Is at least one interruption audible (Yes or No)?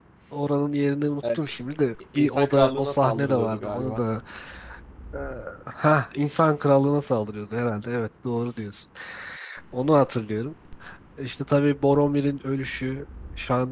Yes